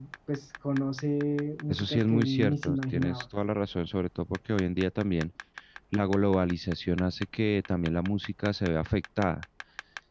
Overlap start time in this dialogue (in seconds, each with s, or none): 1.7 s